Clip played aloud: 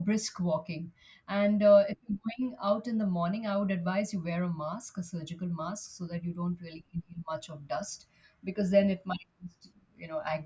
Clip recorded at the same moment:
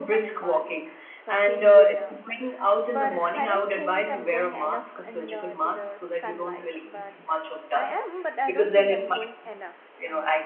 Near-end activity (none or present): present